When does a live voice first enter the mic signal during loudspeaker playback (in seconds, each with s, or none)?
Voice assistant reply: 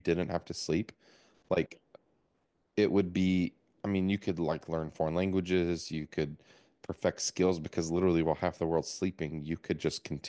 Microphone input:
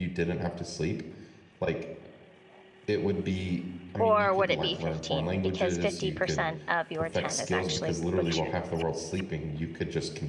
4.0 s